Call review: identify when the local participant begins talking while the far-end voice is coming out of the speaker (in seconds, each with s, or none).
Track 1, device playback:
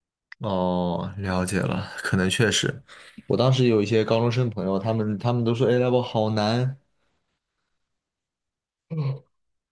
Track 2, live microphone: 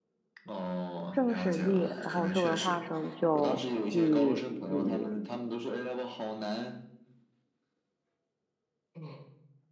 1.1 s